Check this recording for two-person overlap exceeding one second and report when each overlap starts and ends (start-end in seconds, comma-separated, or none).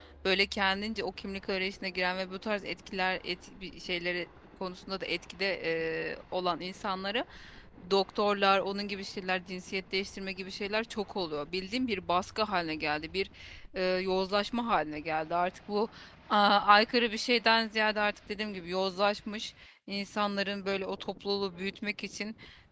none